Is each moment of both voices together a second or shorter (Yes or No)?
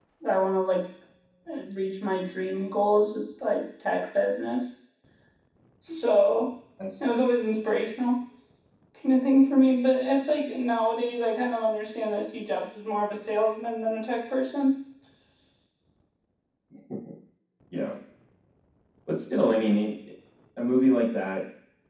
Yes